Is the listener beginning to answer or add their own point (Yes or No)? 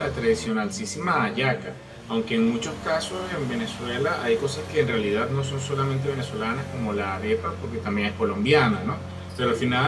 No